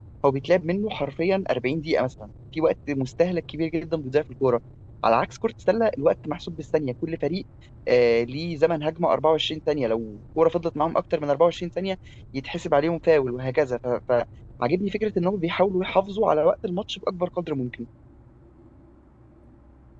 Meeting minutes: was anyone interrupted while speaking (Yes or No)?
No